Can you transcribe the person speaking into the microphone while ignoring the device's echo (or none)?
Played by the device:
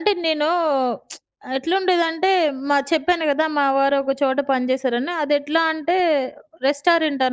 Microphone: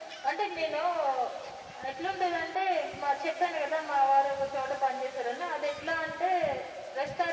none